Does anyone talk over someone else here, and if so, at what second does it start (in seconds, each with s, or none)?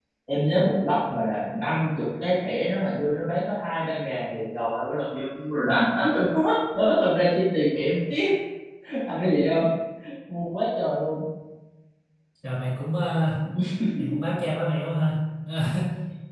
none